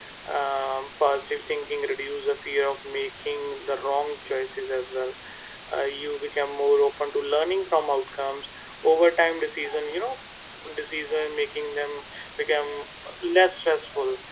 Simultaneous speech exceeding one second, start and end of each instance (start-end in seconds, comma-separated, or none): none